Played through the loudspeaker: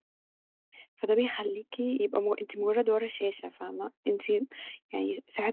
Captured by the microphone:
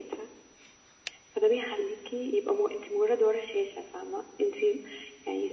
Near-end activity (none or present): none